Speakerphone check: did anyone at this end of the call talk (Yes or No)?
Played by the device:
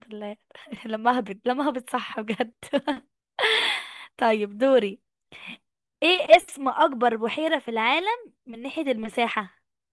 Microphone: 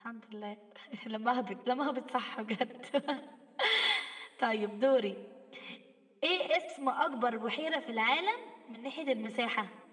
No